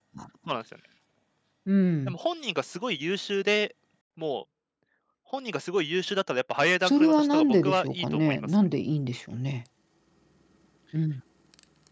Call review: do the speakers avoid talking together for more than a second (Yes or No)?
No